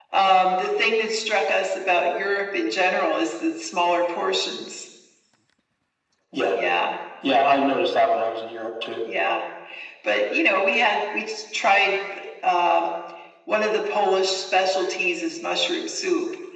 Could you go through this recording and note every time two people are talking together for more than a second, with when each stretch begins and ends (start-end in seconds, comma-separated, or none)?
none